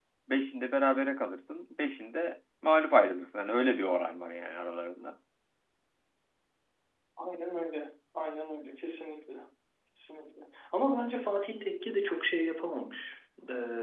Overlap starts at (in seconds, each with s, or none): none